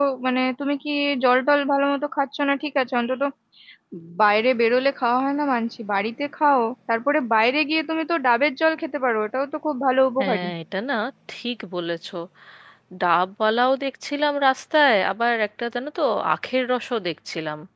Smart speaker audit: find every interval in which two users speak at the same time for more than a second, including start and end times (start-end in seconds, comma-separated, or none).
none